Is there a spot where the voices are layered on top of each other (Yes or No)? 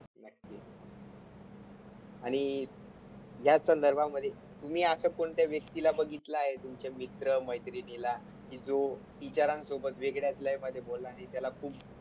No